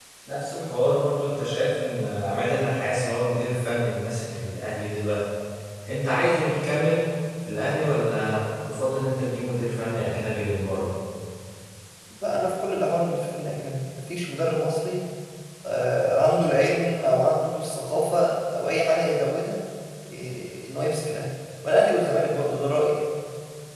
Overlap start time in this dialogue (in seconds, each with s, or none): none